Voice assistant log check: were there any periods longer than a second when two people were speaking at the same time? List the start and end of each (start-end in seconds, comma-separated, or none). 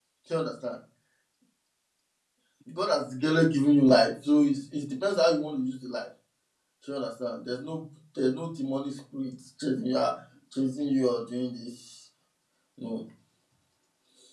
none